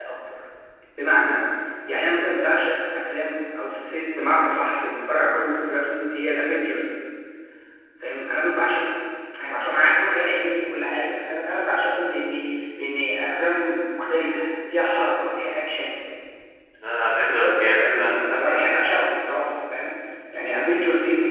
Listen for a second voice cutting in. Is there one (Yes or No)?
Yes